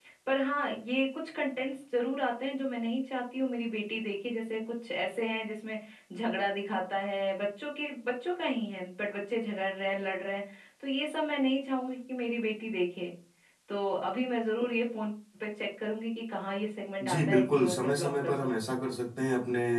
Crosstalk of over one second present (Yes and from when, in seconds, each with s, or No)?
Yes, from 17.0 s